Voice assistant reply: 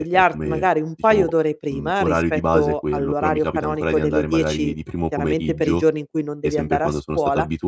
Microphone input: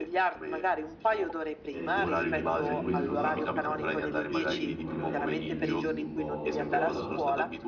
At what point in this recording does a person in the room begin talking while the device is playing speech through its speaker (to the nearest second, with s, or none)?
2 s